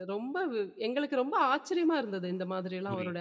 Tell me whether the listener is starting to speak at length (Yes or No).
Yes